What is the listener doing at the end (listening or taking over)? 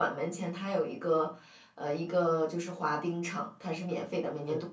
listening